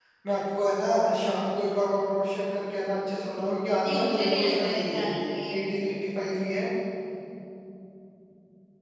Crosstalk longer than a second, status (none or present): present